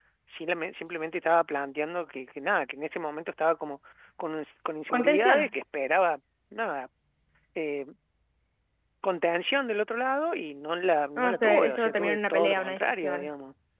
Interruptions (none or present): present